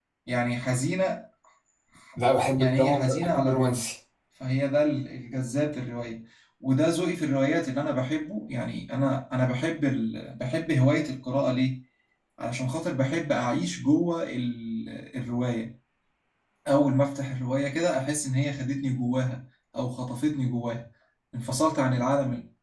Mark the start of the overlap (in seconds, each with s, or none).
2.6 s